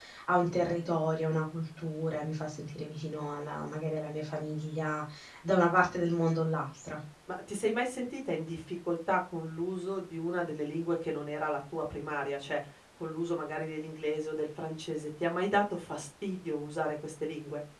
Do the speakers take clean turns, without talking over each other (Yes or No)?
Yes